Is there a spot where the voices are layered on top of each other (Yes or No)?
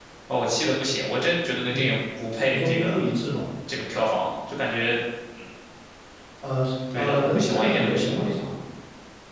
Yes